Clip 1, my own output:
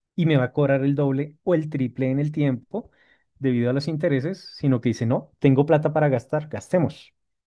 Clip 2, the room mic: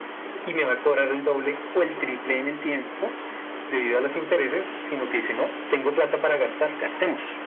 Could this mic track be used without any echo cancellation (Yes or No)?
No